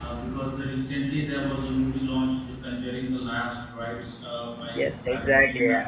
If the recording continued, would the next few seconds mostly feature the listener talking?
Yes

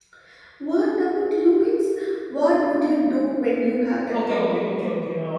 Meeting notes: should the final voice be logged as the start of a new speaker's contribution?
Yes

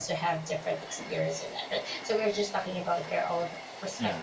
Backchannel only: Yes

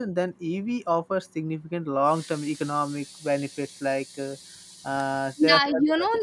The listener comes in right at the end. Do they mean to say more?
Yes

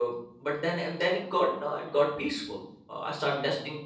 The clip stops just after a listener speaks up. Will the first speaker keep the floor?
Yes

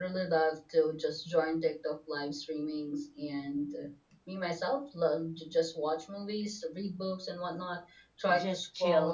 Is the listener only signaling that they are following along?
Yes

